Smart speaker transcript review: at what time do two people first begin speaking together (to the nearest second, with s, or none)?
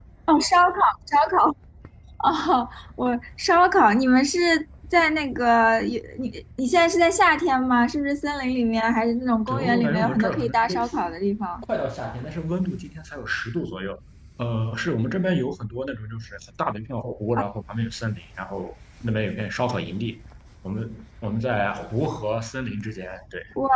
9 s